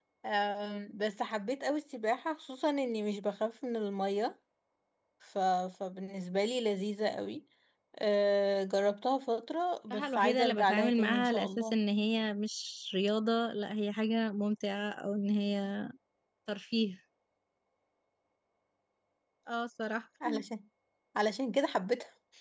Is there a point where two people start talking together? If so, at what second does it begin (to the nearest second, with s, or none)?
10 s